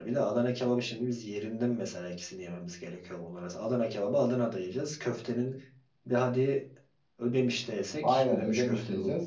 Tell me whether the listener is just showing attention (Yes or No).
No